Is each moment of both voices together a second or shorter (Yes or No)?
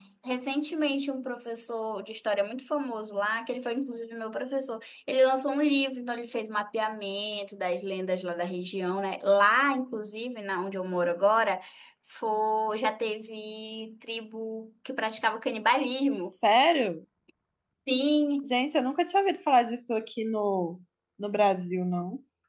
Yes